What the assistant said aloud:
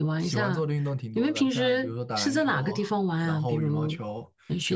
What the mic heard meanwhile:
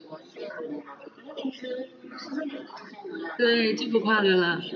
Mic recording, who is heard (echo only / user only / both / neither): both